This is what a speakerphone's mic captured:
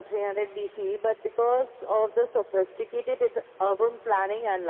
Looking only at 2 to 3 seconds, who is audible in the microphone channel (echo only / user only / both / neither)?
echo only